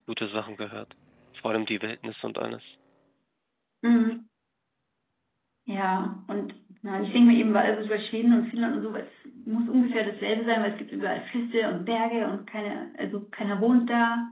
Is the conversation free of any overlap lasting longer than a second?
Yes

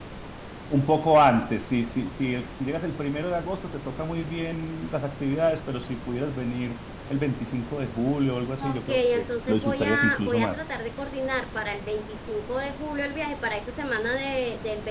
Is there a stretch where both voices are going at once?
Yes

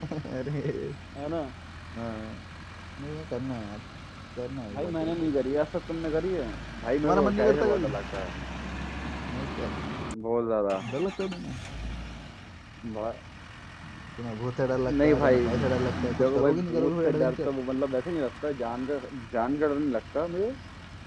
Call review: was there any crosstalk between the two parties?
Yes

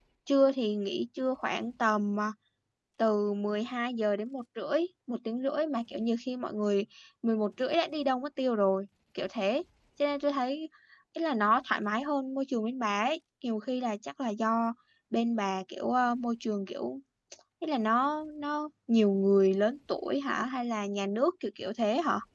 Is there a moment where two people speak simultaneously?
No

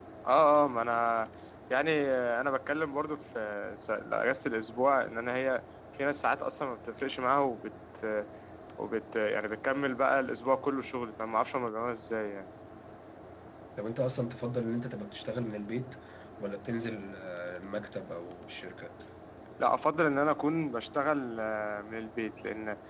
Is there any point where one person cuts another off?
No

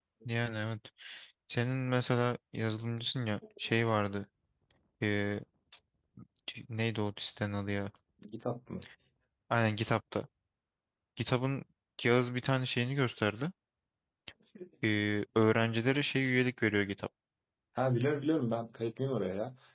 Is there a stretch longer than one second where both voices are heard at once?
No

